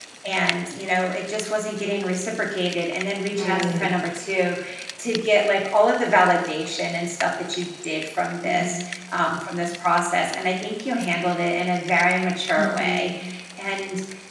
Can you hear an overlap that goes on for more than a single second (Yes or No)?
No